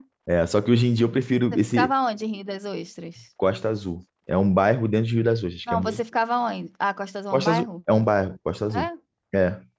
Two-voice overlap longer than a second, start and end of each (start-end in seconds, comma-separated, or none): none